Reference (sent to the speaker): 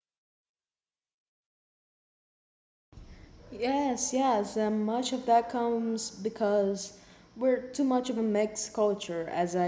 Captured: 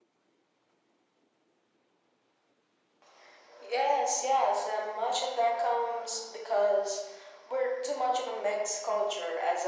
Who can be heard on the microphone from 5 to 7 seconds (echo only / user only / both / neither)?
echo only